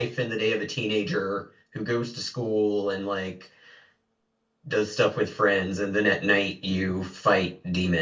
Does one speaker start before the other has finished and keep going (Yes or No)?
No